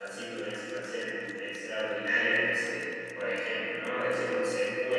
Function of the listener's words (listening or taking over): listening